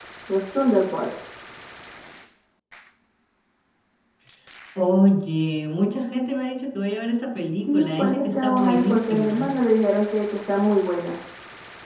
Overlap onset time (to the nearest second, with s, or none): 8 s